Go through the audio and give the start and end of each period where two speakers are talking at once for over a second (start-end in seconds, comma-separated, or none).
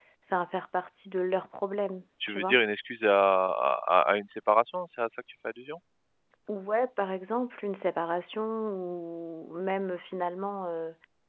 none